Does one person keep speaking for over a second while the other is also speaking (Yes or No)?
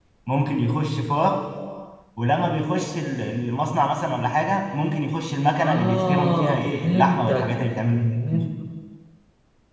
Yes